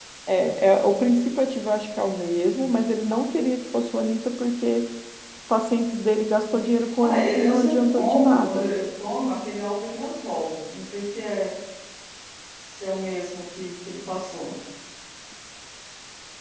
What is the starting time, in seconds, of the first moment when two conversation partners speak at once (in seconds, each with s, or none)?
7.0 s